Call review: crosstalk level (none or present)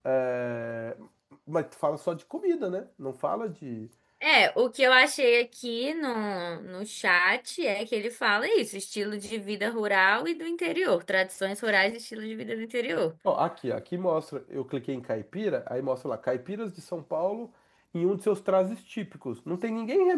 none